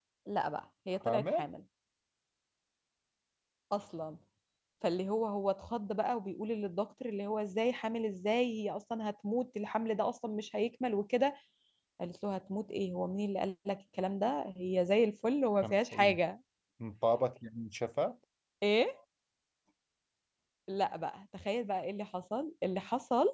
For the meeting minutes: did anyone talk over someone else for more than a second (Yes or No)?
No